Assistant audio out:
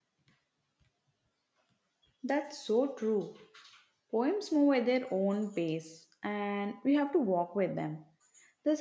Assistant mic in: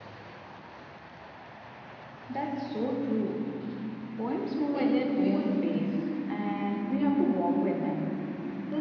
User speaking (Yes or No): Yes